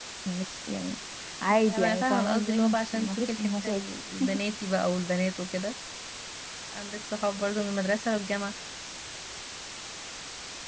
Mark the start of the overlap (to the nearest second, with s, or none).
1 s